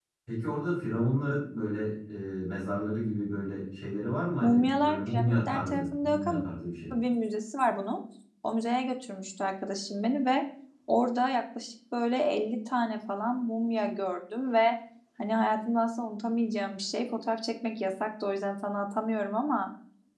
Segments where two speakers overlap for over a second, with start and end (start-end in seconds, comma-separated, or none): 4.4-6.4